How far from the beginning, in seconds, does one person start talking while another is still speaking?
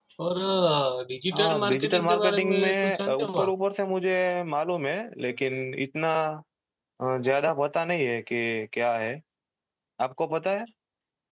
1.3 s

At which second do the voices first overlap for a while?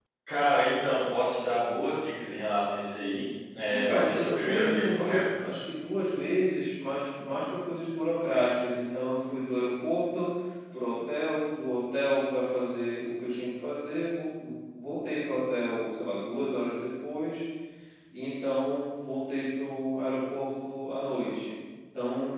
3.7 s

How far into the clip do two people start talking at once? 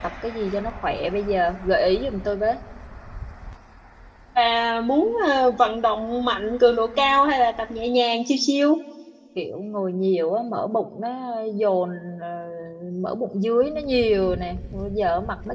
none

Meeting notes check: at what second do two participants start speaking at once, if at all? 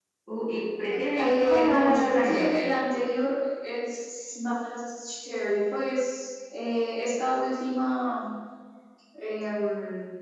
1.1 s

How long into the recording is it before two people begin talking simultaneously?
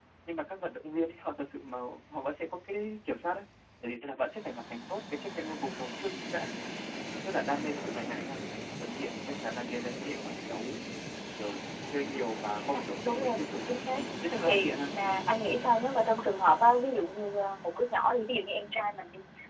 12.7 s

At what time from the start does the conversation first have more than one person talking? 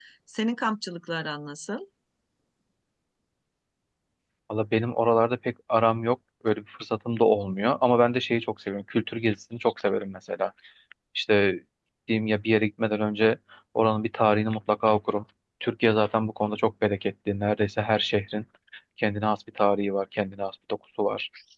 none

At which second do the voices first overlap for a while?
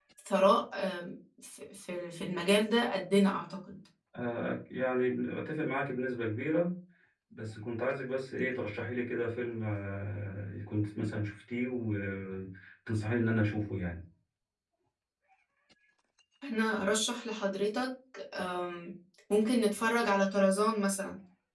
none

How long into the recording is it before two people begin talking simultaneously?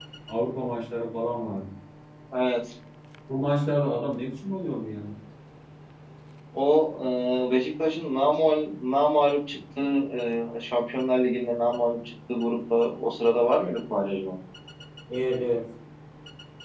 none

